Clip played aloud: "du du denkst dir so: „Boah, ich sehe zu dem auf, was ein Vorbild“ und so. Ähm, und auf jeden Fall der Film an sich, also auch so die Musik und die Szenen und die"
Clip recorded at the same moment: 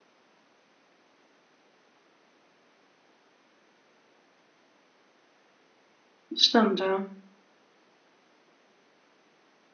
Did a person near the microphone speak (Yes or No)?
Yes